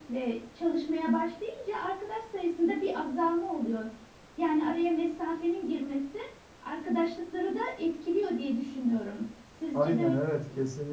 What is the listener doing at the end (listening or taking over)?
taking over